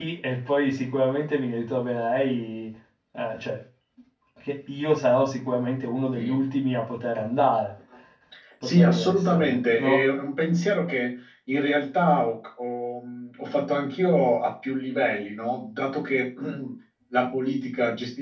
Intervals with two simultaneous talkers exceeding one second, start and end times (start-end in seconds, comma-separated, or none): 8.8-10.0